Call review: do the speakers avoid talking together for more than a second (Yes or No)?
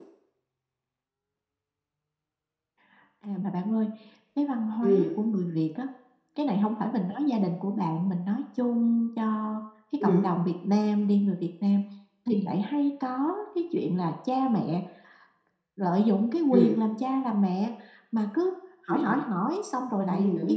Yes